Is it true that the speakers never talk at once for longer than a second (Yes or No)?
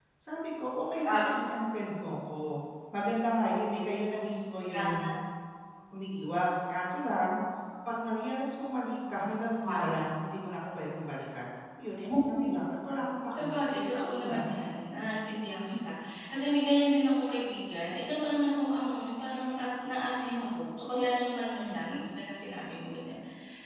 Yes